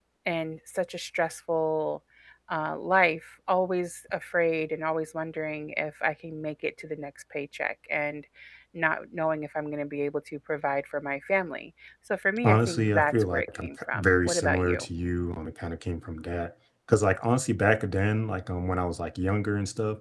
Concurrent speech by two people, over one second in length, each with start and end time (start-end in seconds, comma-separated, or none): 12.4-14.8